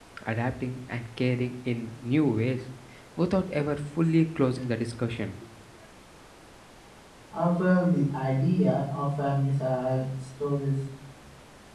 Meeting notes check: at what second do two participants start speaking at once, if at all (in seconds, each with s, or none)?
none